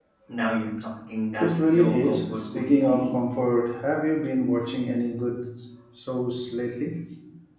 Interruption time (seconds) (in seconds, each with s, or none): 1.4 s